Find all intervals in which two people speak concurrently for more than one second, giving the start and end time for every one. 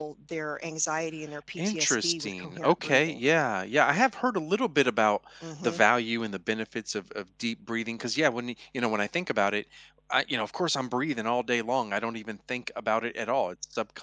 1.6-3.2

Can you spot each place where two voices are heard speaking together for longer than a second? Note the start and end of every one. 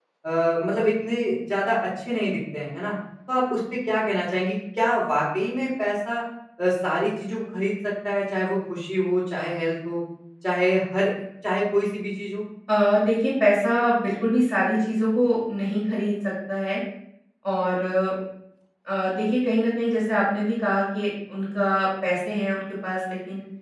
none

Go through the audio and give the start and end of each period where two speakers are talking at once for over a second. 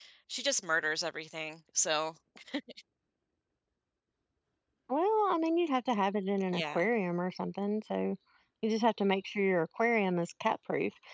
none

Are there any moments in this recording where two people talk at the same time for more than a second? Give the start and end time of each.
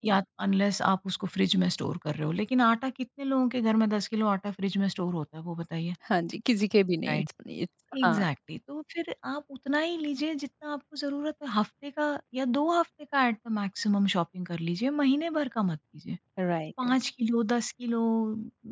none

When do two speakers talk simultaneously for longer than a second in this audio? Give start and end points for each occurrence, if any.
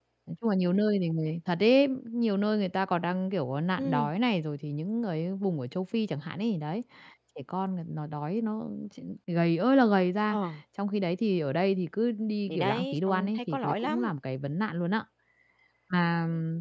12.5-14.1

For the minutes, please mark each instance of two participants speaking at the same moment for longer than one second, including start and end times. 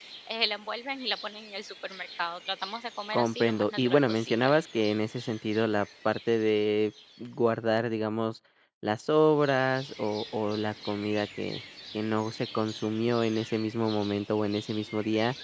3.1-4.5

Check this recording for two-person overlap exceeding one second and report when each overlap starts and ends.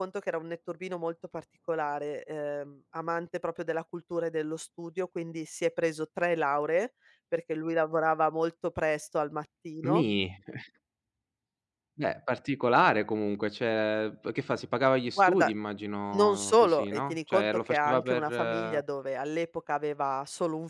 16.1-18.8

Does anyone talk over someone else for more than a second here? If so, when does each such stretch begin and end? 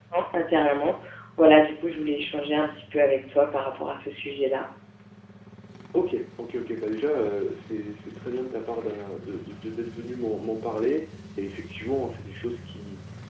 none

